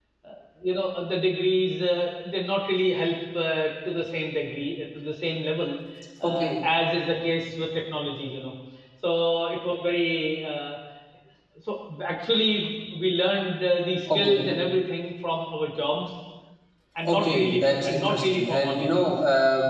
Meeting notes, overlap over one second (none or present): present